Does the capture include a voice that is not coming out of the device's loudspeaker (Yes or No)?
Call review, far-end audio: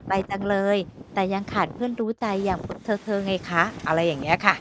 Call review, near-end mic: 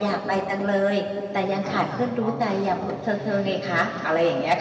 Yes